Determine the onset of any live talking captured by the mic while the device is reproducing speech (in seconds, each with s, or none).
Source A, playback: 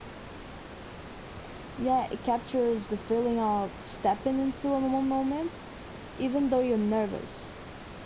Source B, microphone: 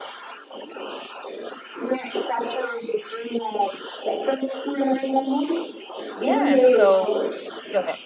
6.1 s